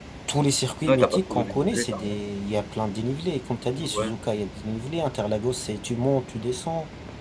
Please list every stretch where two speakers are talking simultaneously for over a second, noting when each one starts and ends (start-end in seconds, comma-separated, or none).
0.9-2.2